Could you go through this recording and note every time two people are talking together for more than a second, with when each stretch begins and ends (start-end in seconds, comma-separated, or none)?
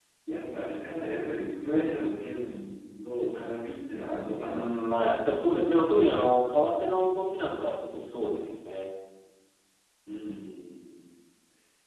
none